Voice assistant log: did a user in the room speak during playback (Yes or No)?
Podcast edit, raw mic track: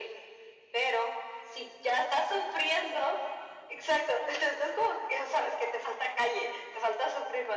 No